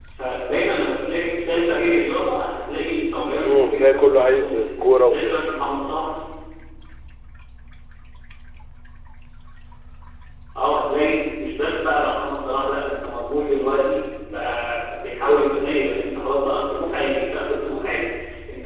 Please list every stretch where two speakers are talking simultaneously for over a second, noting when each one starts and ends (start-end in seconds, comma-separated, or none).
3.5-5.4